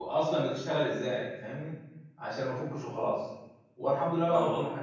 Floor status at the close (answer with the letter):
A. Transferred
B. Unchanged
B